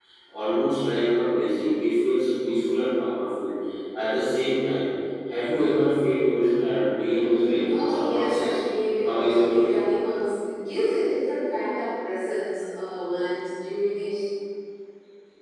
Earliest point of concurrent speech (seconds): 7.1 s

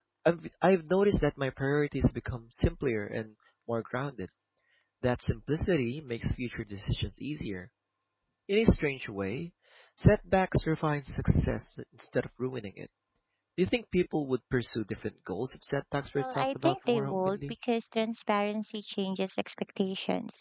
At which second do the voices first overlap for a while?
16.2 s

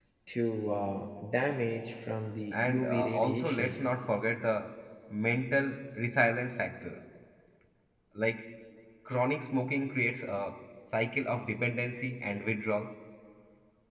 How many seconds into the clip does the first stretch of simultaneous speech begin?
2.5 s

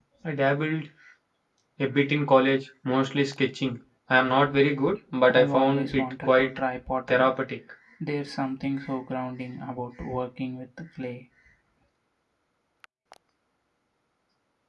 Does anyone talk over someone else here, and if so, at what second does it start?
5.3 s

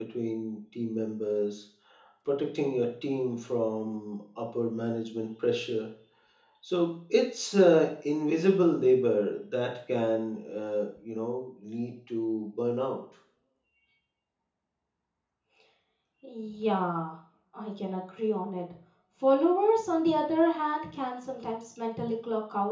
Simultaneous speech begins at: none

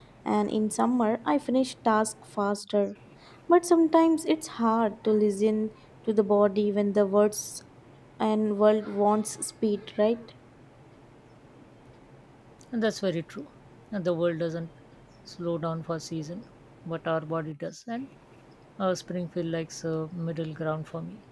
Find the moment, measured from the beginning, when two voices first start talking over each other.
none

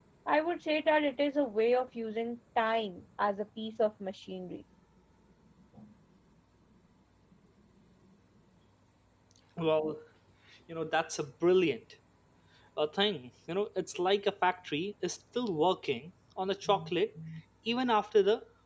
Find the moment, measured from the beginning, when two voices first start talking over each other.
none

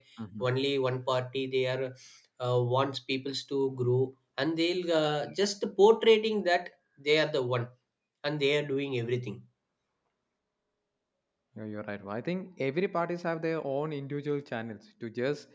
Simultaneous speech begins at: none

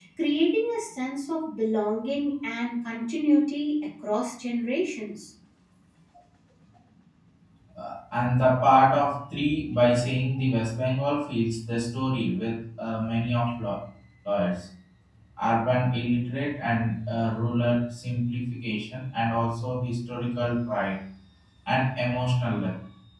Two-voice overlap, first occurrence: none

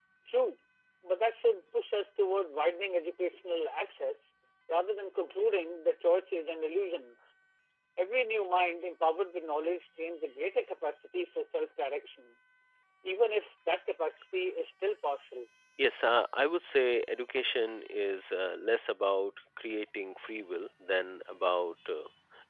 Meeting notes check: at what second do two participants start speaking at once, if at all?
none

